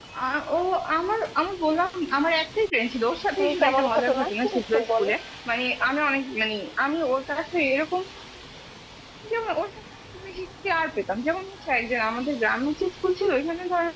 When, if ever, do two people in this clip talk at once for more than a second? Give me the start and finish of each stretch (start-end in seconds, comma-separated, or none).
3.4-5.1